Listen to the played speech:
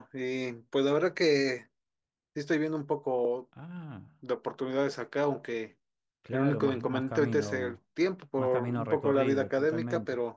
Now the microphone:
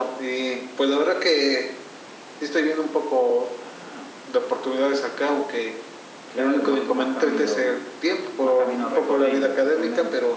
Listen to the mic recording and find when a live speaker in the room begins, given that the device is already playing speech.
none

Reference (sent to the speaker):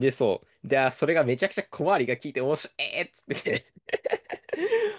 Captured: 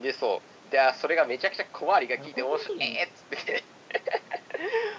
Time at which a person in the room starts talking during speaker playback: 2 s

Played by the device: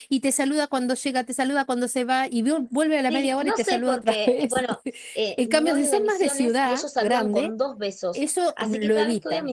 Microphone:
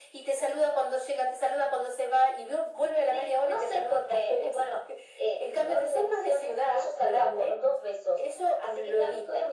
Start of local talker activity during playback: none

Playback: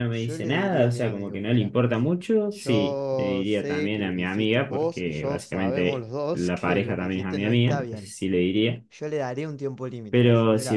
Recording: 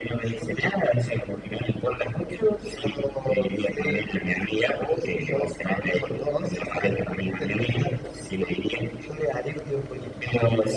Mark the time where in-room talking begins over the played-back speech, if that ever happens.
none

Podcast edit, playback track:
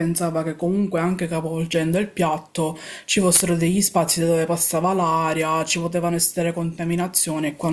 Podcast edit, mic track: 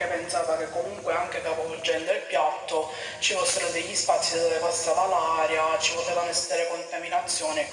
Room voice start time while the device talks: none

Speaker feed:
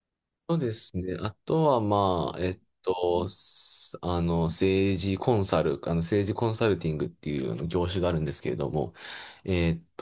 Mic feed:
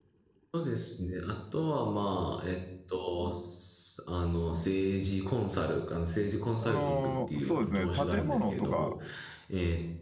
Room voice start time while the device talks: 7 s

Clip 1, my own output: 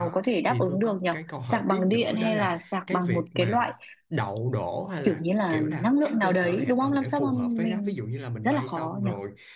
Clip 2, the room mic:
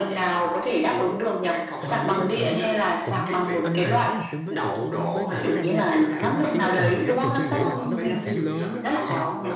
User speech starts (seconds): 2 s

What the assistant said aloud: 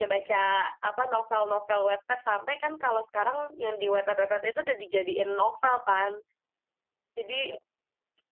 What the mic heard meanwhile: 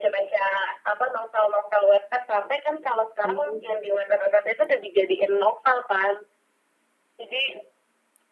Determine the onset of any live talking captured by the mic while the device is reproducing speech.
3 s

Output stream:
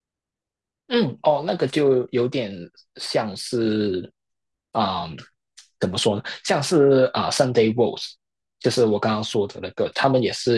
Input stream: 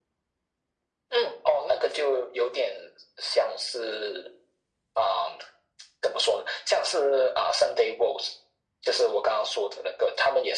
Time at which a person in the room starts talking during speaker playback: none

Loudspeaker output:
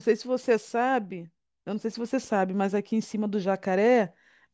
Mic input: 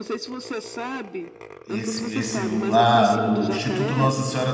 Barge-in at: 2 s

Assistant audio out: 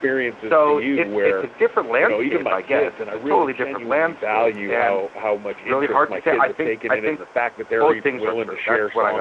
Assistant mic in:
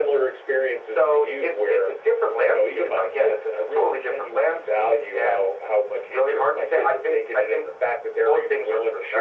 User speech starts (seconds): none

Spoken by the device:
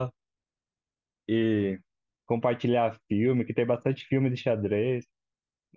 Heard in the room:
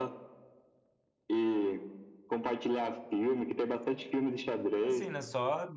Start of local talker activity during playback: 5 s

